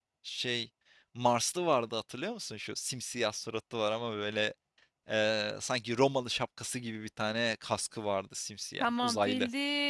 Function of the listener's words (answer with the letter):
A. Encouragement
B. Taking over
B